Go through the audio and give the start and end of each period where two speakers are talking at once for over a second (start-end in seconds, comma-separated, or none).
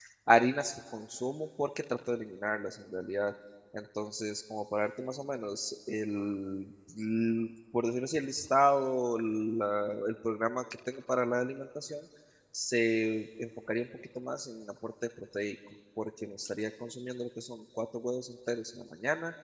none